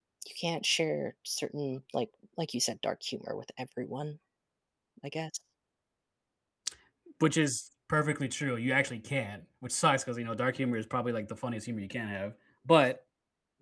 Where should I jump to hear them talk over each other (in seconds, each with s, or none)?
none